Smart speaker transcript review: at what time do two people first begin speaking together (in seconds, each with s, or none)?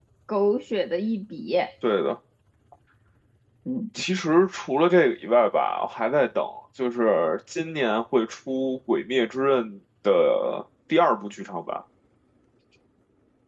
none